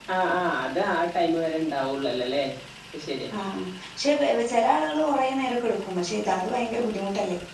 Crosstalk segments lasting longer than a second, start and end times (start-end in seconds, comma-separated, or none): none